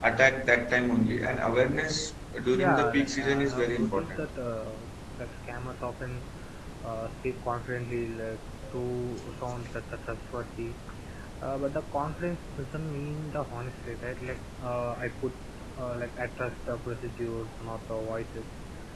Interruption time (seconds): 2.5 s

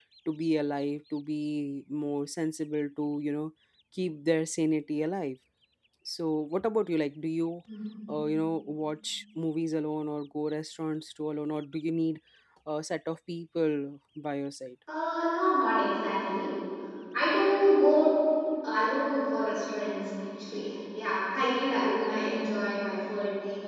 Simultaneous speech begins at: none

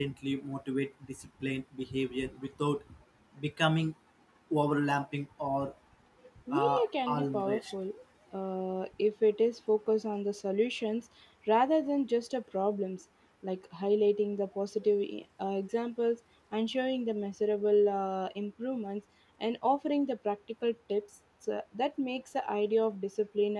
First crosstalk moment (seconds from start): 6.5 s

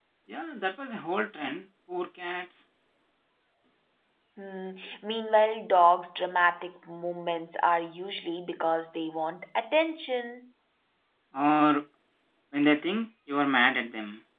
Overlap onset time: none

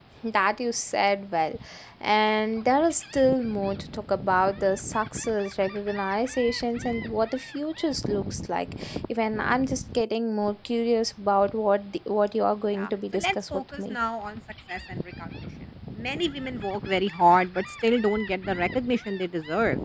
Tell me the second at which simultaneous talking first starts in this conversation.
12.7 s

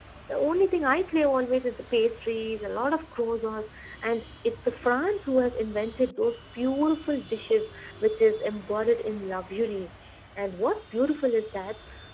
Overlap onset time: none

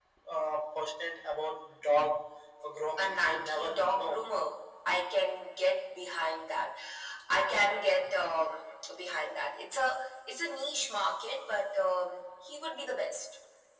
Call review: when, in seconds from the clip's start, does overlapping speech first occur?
3.0 s

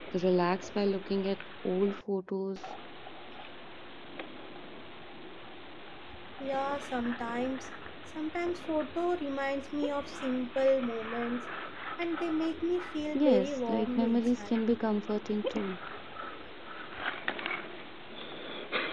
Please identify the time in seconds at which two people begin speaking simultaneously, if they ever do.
13.1 s

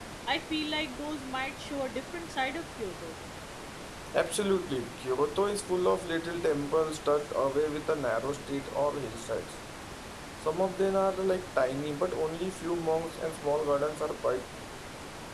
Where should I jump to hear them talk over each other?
none

